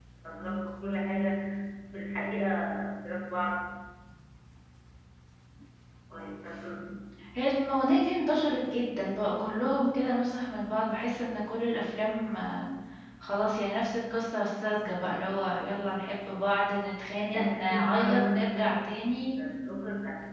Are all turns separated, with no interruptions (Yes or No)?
No